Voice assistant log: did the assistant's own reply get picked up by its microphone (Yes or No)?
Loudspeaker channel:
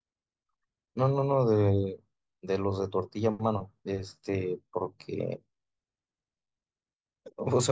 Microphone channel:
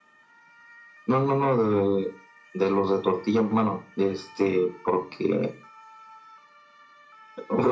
Yes